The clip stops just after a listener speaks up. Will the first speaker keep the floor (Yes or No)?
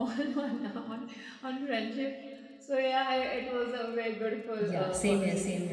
No